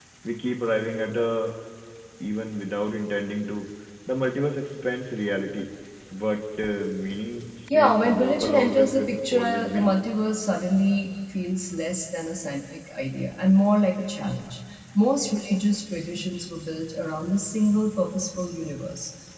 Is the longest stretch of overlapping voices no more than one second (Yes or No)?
No